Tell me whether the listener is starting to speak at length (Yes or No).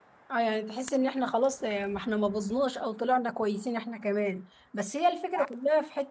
No